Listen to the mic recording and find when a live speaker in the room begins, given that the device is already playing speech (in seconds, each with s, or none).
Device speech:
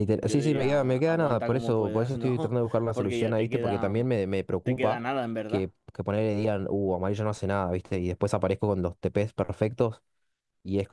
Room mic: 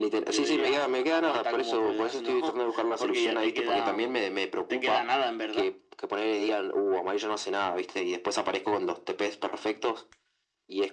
none